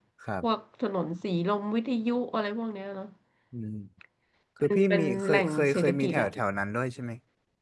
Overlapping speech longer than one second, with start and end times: 4.7-6.3

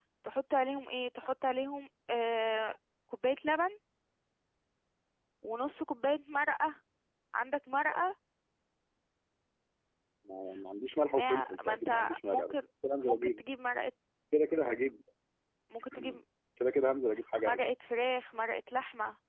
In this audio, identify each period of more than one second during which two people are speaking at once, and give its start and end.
11.1-12.5

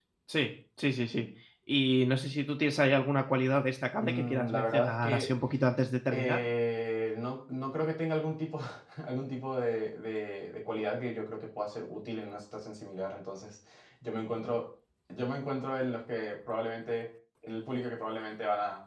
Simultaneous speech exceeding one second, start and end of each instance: 4.0-5.3

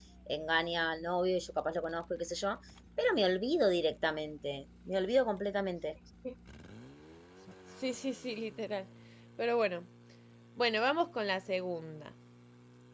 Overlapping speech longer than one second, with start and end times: none

